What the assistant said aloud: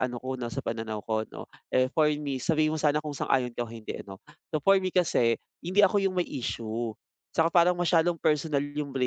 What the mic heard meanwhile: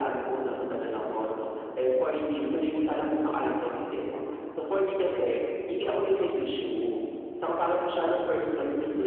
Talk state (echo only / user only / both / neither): echo only